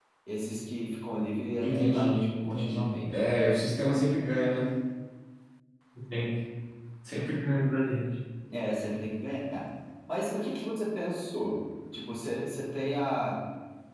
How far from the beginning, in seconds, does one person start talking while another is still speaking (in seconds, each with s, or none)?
1.6 s